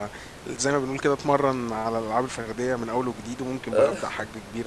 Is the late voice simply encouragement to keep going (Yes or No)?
Yes